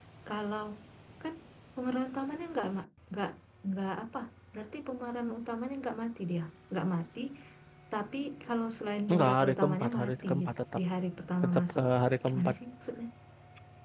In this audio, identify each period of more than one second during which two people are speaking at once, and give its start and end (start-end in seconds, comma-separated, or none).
9.1-10.8